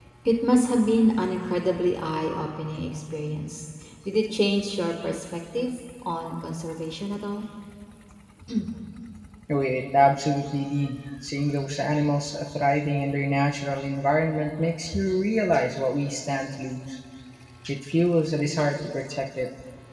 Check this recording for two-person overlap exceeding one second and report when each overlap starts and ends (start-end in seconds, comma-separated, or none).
none